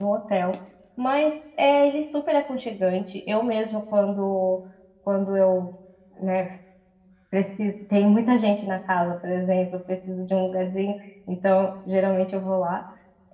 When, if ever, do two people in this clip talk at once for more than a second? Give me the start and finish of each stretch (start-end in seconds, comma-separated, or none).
none